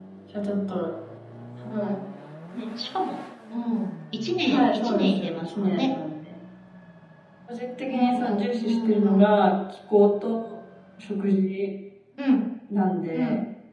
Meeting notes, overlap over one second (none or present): present